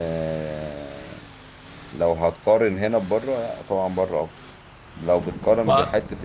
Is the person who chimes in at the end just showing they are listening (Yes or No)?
Yes